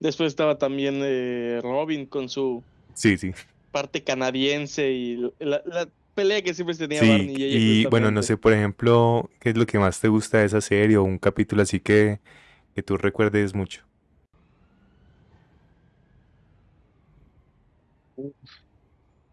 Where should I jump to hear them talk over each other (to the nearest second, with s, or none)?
7 s